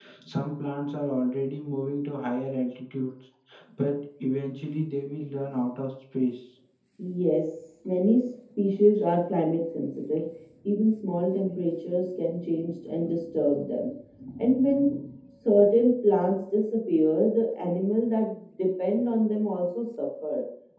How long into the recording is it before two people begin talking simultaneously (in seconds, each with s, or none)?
none